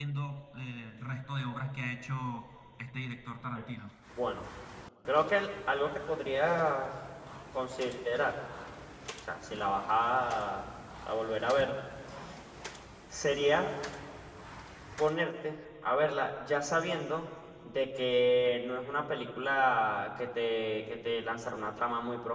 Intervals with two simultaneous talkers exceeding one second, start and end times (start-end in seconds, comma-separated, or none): none